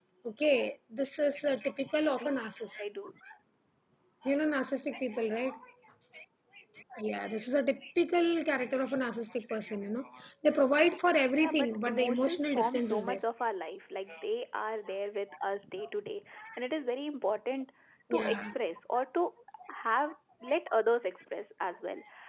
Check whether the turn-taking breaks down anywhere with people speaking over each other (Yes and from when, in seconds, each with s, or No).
Yes, from 11.3 s